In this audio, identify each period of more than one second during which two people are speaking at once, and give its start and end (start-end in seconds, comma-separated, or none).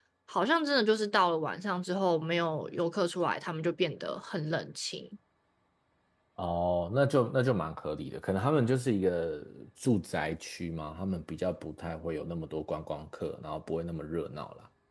none